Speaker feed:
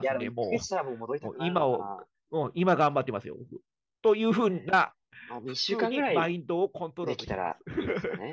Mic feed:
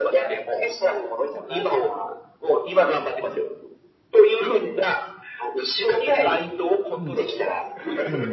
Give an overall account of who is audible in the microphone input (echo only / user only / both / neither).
both